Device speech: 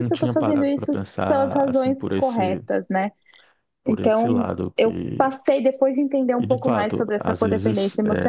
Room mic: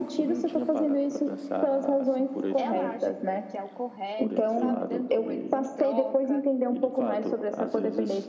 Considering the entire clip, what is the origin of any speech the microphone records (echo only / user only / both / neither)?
both